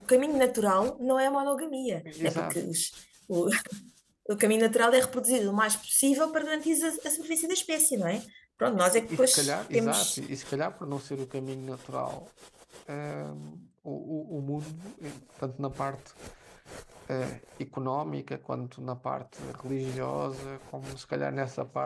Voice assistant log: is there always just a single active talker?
No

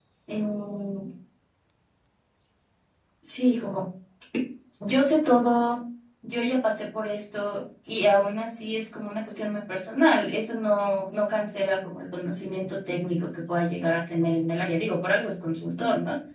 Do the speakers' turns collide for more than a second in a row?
No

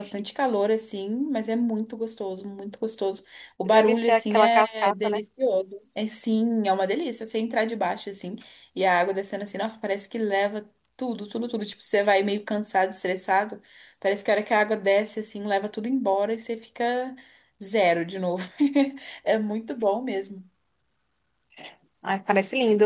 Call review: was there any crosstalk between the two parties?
Yes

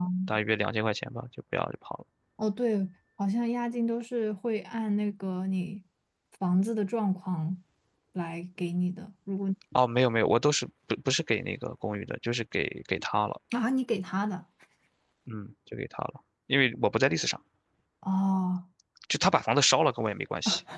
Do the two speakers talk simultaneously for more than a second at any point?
No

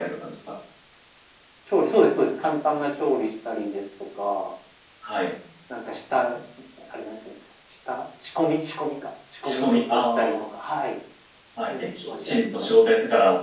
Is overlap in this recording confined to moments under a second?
No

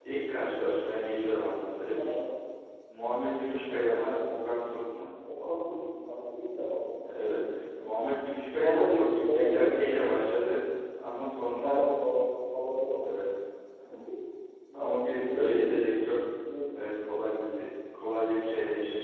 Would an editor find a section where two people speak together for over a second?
Yes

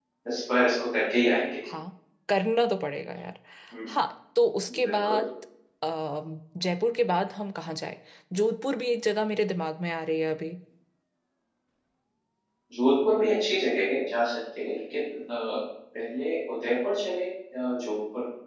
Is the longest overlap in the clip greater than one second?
No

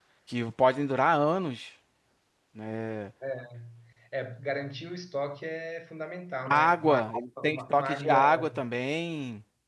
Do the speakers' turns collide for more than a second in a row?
Yes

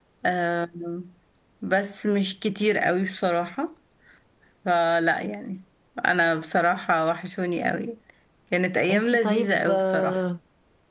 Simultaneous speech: Yes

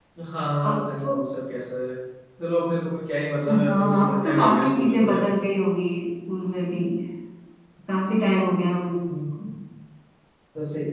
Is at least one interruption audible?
Yes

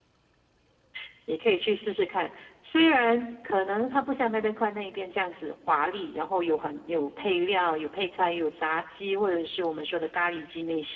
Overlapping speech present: No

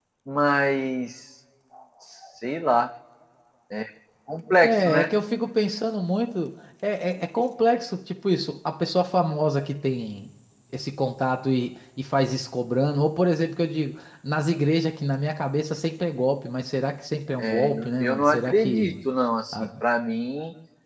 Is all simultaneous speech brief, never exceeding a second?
No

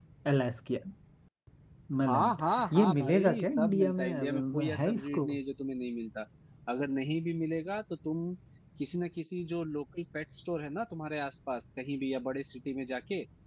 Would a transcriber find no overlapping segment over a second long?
No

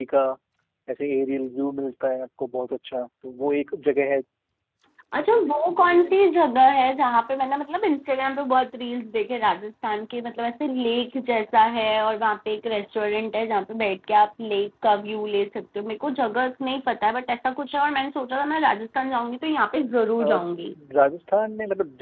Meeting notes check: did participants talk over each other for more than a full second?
No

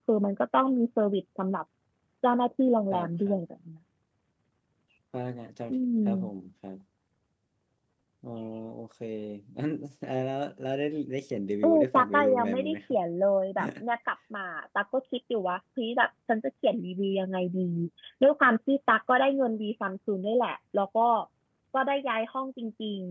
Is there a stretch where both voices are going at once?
Yes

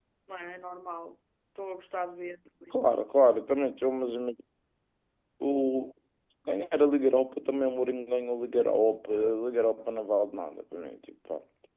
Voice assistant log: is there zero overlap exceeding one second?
Yes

